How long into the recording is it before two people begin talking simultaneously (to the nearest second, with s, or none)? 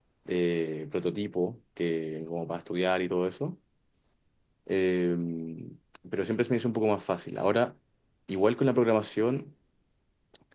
none